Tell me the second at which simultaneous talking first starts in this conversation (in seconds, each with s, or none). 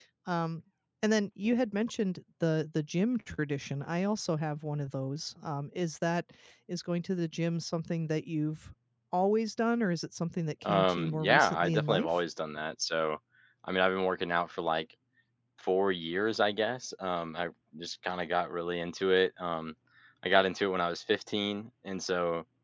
10.6 s